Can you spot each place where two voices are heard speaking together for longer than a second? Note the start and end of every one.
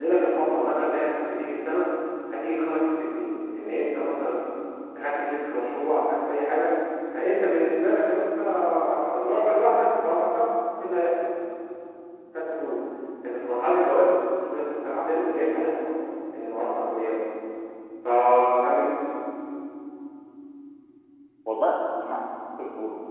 none

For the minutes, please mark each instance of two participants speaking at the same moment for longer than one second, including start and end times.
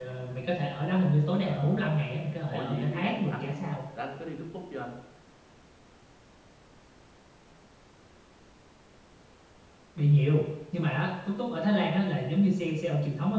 2.5-3.8

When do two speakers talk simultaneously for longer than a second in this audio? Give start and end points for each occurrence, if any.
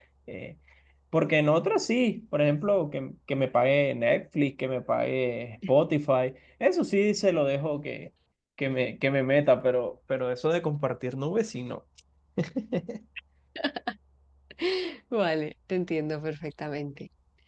none

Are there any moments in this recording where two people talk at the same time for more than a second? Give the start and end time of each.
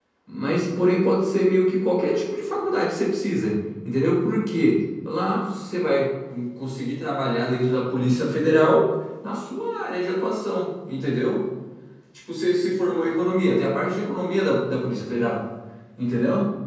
none

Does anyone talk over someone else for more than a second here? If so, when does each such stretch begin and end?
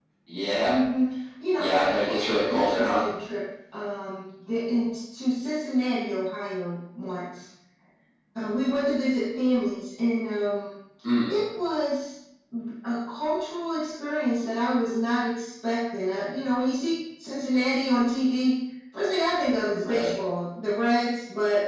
1.6-3.0

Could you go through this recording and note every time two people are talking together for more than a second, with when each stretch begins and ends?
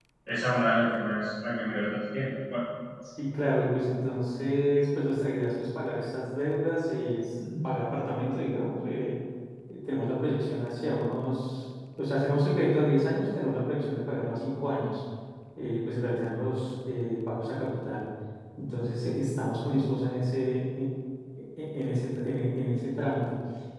none

